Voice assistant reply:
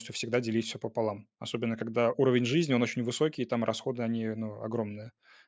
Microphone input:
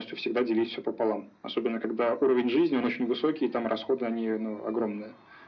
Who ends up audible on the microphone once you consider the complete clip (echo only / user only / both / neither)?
echo only